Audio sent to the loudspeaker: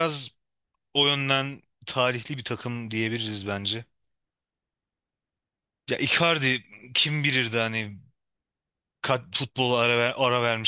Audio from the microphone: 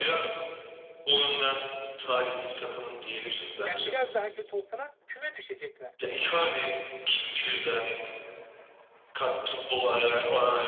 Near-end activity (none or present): present